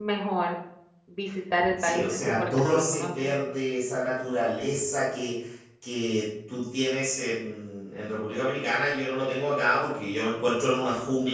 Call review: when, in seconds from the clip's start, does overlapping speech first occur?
1.8 s

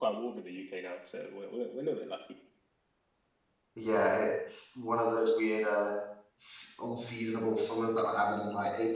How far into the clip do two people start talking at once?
none

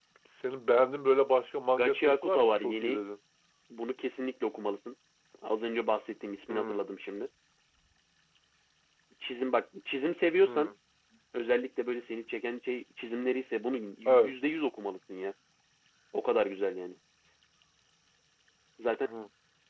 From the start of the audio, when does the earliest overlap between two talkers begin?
1.8 s

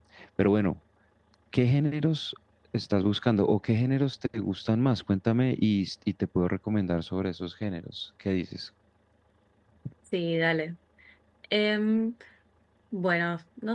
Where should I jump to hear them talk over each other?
none

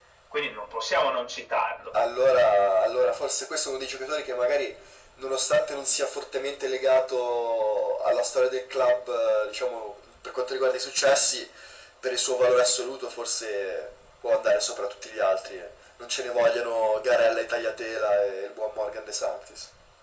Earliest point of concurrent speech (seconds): none

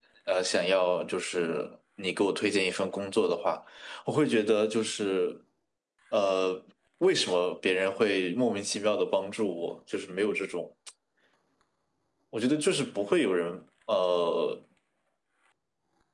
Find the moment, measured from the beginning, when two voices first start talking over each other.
none

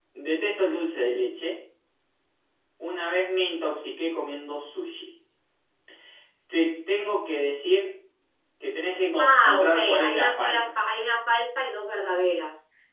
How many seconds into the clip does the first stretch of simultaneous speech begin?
9.2 s

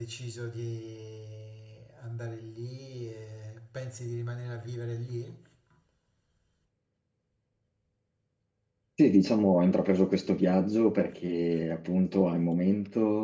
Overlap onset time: none

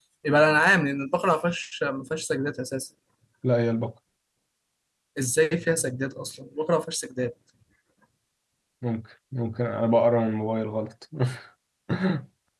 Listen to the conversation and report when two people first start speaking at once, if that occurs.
none

